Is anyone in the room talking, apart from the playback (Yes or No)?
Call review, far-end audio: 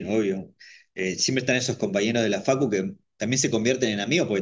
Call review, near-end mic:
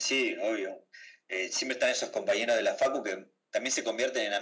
No